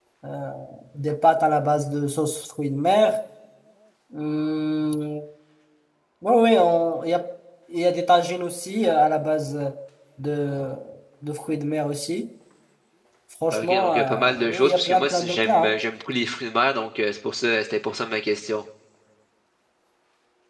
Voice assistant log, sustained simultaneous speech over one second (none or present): present